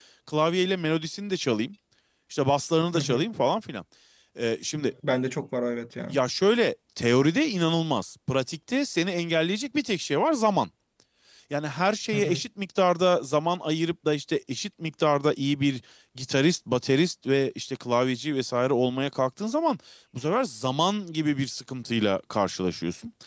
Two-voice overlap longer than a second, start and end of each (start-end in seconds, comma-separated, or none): none